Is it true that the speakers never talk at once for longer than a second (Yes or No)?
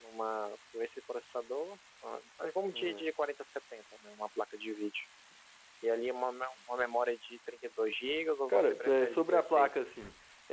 No